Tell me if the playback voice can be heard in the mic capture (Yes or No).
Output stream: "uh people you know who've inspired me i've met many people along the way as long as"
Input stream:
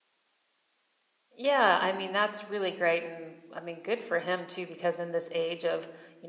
No